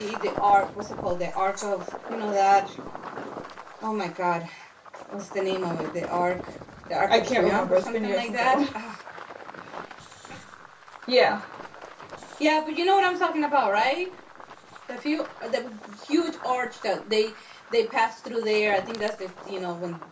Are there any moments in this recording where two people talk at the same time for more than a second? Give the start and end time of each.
7.1-8.6

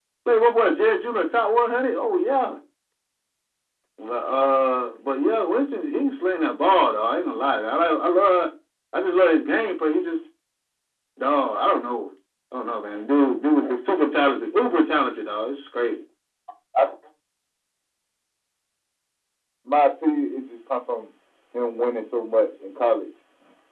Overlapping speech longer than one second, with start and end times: none

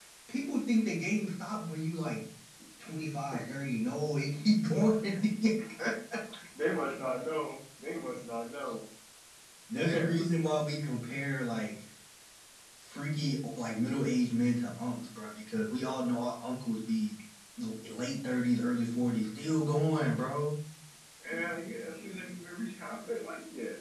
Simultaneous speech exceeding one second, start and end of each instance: none

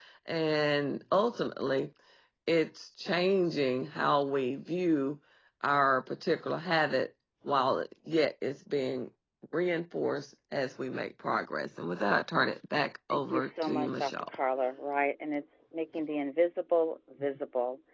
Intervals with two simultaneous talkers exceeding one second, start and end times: 13.1-14.3

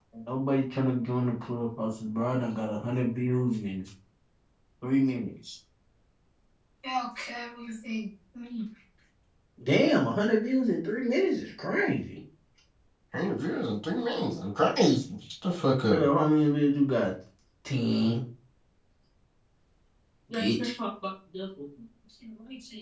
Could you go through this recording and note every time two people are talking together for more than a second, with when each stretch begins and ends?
none

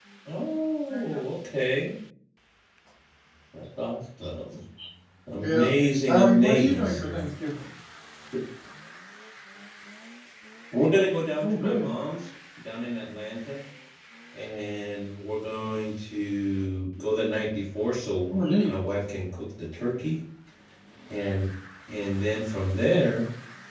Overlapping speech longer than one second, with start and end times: 6.1-7.3

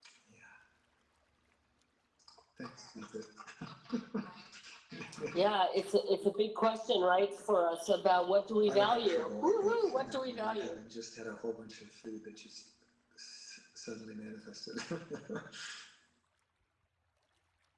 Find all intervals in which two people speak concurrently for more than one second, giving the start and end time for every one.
8.7-10.8

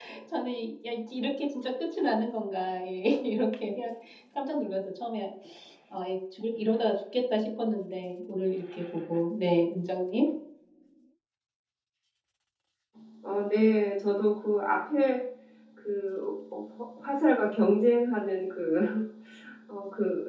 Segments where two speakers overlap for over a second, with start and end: none

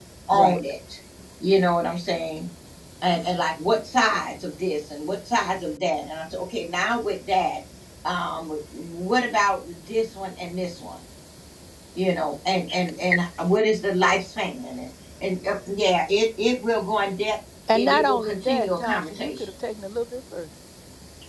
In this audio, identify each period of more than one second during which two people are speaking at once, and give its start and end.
17.7-19.5

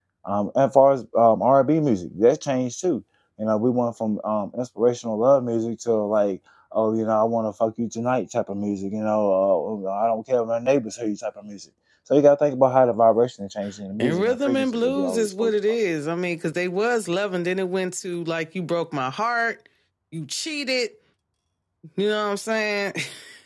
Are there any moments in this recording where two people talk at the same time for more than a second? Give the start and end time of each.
14.0-15.5

